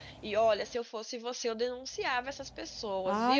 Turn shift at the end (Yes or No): Yes